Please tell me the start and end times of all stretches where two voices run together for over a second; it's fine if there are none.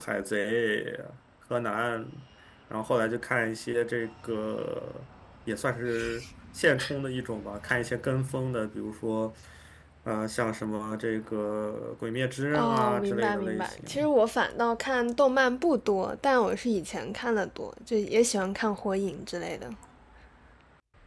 12.5-14.1

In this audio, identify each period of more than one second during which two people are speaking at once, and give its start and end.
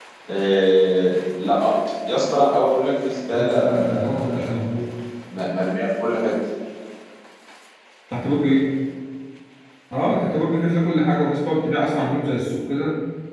3.3-4.7

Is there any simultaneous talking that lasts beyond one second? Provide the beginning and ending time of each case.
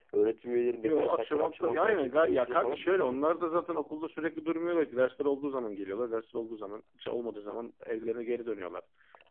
0.8-3.2

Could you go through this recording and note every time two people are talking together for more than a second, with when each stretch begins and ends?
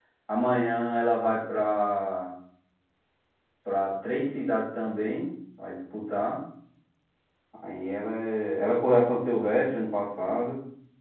none

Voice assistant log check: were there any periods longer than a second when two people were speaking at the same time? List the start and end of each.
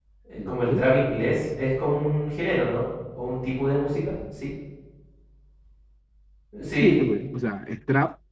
none

